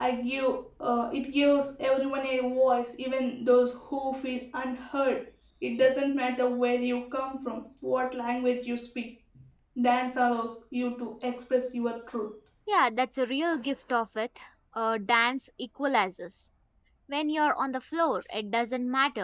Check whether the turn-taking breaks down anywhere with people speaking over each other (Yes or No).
No